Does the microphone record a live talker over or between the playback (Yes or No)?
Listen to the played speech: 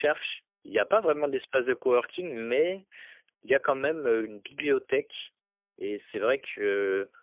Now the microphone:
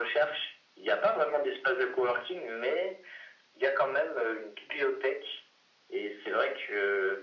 No